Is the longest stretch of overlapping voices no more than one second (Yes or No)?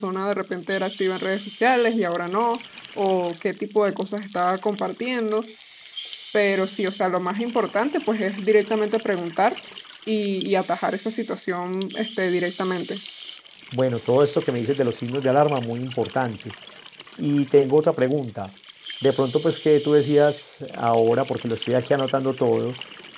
Yes